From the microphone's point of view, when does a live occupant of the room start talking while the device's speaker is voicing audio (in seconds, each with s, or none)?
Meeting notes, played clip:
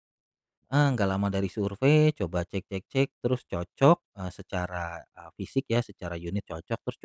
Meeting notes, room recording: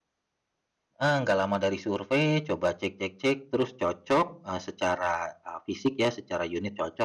none